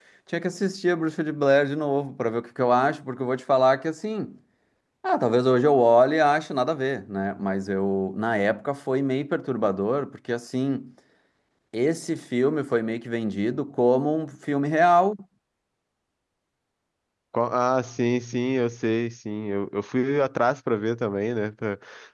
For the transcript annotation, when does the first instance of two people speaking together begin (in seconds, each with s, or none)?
none